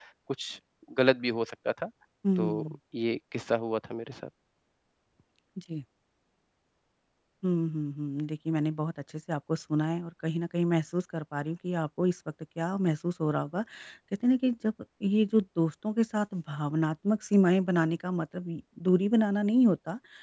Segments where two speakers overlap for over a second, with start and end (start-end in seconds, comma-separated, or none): none